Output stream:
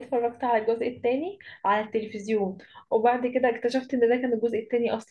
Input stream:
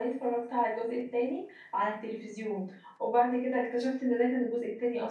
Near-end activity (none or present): none